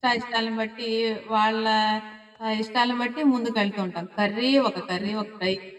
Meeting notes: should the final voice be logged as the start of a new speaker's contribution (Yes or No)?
No